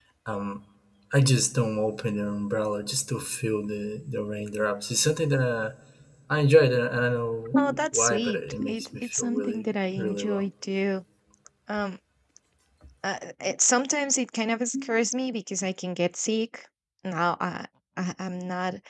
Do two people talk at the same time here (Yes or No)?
Yes